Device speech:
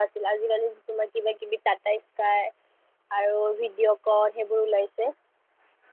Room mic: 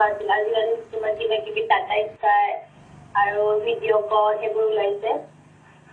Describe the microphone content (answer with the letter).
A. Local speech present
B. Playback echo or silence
B